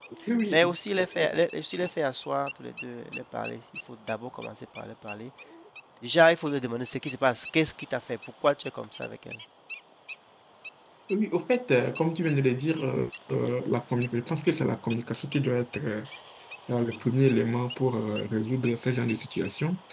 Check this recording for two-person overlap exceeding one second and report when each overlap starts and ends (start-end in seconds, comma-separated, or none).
none